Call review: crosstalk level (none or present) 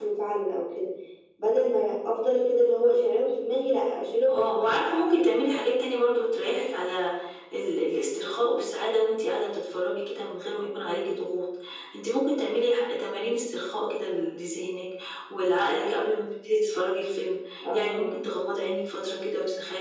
present